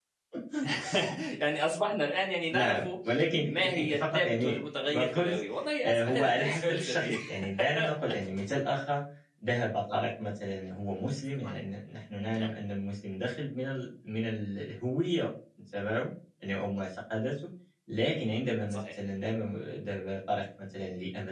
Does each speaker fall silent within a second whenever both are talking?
No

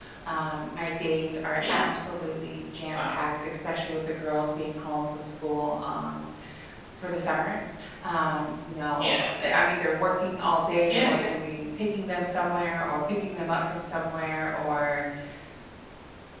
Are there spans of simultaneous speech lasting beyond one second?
No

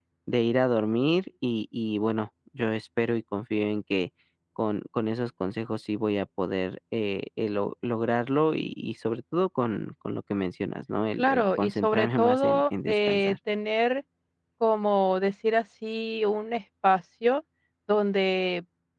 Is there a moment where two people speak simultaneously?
Yes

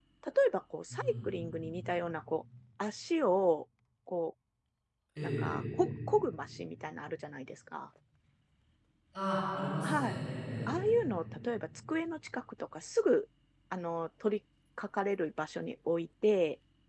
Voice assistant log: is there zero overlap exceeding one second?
Yes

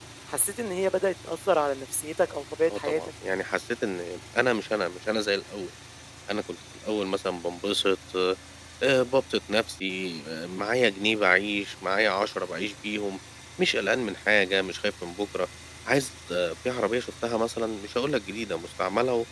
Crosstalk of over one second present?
No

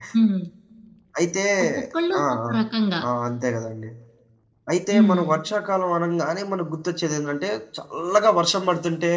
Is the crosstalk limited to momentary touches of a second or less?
Yes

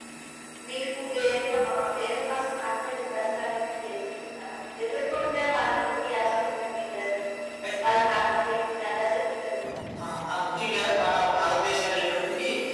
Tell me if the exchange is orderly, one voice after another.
Yes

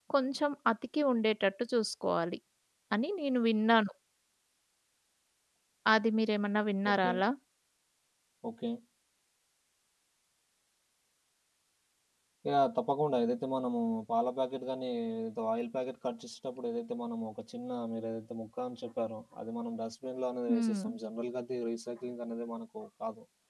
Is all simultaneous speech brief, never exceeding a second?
Yes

